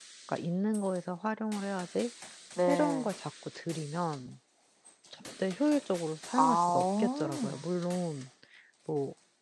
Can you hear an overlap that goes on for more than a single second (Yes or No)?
Yes